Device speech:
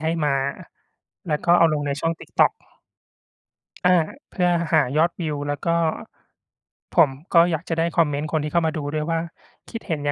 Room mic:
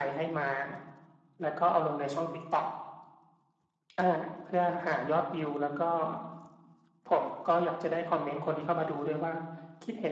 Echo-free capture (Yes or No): No